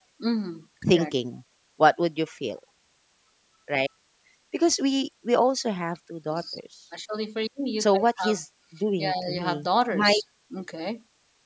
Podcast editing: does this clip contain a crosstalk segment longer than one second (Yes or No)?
Yes